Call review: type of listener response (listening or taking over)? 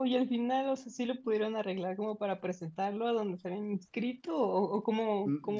taking over